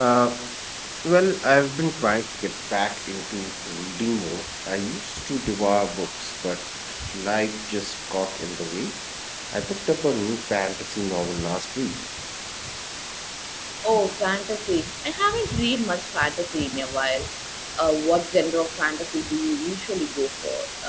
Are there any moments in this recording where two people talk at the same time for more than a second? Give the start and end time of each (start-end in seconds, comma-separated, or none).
none